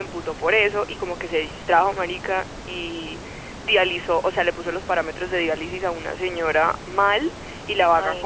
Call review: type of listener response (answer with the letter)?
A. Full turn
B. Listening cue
B